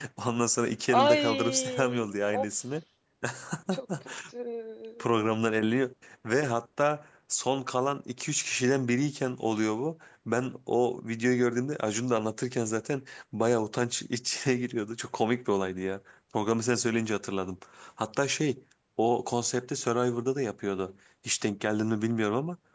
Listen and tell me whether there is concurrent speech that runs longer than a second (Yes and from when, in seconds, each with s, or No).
Yes, from 1.0 s